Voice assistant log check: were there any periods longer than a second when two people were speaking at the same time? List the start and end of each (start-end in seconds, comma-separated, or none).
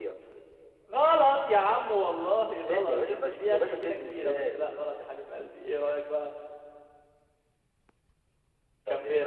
2.7-4.6